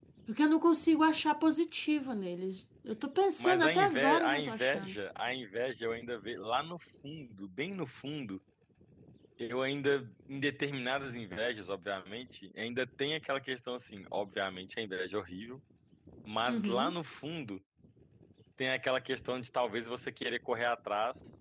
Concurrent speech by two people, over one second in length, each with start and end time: 3.4-5.0

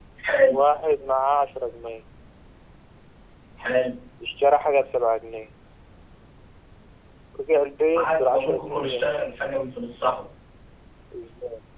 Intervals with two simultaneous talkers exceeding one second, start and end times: 8.0-9.3

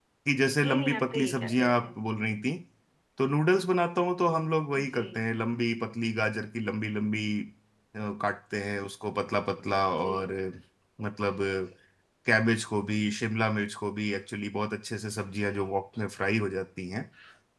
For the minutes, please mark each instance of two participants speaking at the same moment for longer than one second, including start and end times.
0.6-1.9

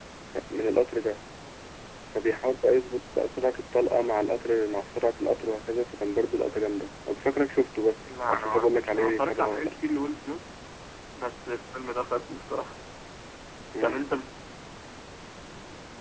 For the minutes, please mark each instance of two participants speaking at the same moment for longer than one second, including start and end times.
8.0-9.7

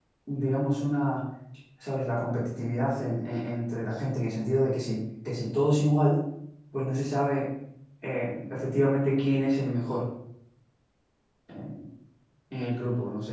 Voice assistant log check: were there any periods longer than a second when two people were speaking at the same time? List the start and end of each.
none

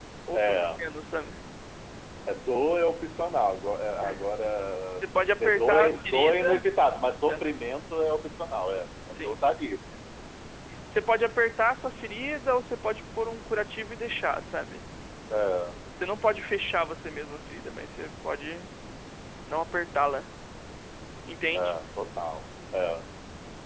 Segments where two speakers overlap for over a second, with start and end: 5.0-6.6

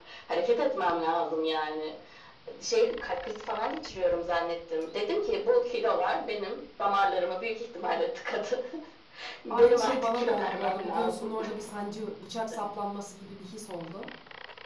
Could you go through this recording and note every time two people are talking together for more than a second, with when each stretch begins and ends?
9.5-11.3

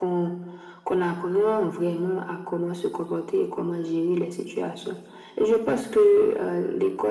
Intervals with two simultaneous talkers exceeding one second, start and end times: none

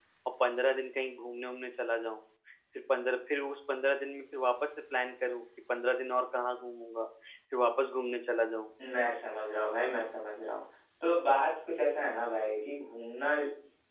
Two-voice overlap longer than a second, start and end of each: none

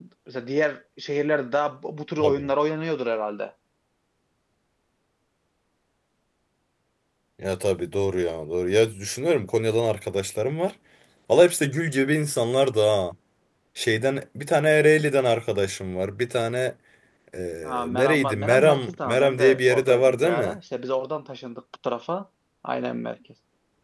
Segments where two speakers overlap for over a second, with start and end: 17.6-20.6

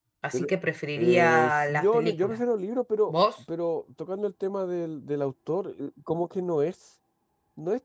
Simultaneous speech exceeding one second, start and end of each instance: 1.0-2.4

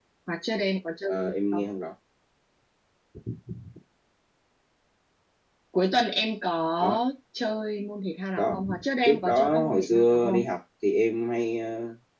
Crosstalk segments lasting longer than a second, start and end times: 9.1-10.4

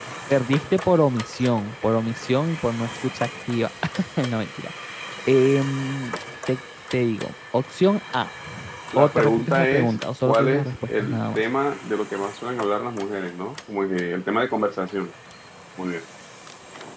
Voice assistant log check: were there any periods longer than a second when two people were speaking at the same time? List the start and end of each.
9.0-11.4

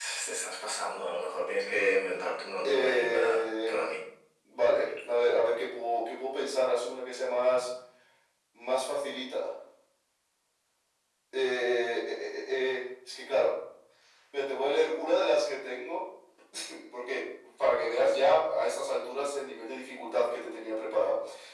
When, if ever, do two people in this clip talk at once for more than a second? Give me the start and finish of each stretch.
2.6-4.0

